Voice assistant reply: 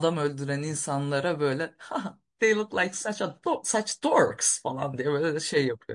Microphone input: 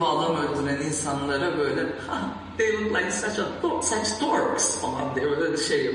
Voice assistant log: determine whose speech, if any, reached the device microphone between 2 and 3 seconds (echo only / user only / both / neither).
echo only